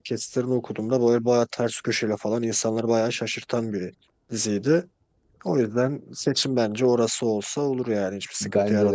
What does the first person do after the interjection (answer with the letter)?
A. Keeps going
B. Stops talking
B